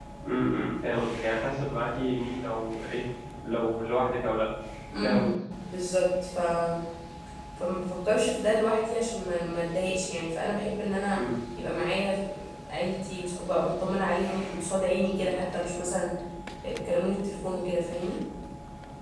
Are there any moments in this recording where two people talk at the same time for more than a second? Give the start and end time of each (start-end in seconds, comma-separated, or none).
none